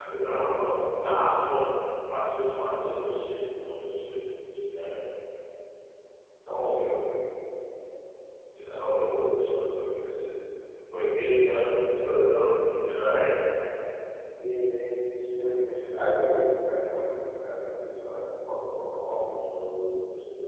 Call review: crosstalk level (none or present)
present